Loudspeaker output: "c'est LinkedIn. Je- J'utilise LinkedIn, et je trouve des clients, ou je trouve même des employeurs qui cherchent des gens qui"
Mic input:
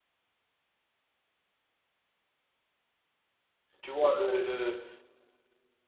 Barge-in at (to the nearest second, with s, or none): 4 s